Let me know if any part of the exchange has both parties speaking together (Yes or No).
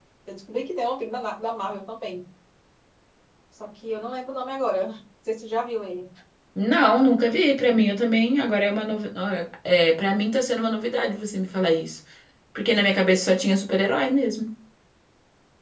No